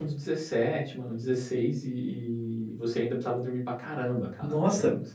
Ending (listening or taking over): taking over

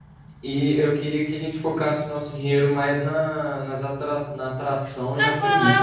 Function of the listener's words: taking over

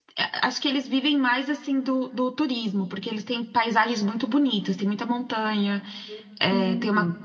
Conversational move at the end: listening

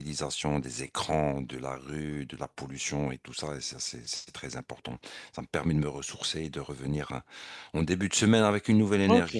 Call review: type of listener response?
taking over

